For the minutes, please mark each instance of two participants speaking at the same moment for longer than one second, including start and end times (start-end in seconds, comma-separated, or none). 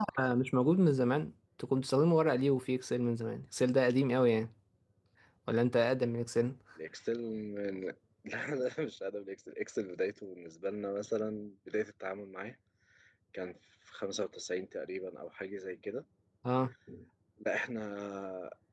none